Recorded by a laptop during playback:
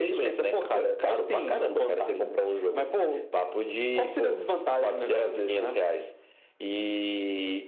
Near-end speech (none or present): none